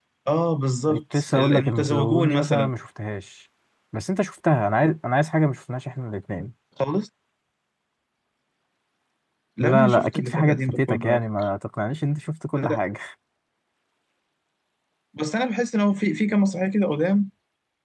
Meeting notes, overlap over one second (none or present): present